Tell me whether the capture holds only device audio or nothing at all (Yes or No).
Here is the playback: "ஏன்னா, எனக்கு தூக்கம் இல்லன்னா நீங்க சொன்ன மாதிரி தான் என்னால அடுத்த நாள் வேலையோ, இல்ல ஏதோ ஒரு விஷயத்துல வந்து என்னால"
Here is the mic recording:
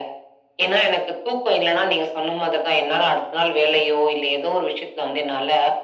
Yes